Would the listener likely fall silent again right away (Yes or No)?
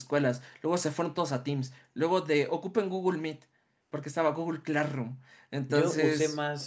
No